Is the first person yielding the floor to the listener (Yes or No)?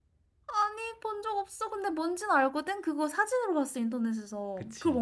Yes